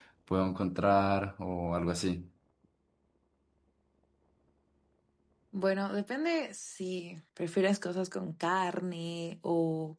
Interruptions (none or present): none